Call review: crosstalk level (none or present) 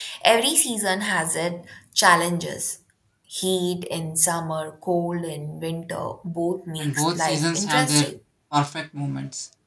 present